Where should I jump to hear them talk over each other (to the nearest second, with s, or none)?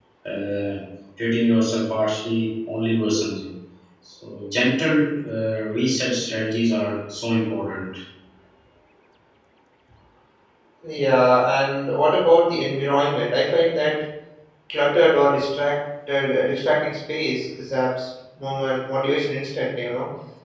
none